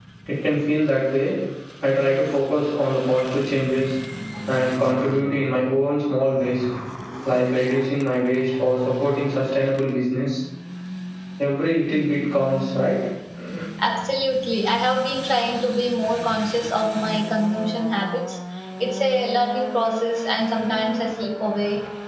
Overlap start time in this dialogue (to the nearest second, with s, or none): none